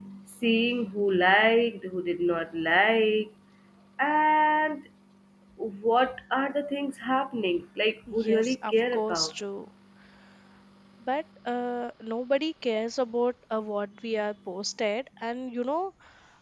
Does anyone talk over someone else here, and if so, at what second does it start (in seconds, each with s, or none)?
8.1 s